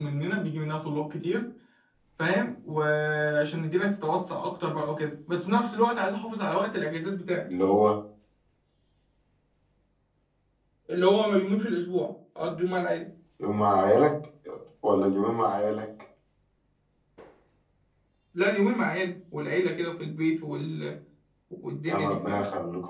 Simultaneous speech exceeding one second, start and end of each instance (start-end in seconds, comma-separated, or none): none